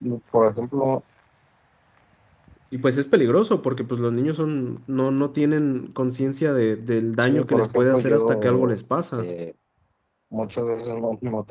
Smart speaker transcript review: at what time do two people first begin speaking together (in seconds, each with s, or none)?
7.2 s